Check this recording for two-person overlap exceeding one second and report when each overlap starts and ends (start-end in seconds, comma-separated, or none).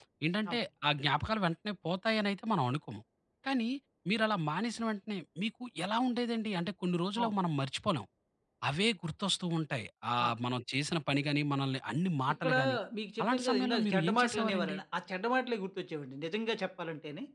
13.2-14.8